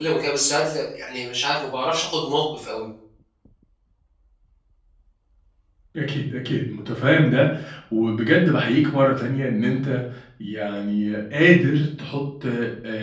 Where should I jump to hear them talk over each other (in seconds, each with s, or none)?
none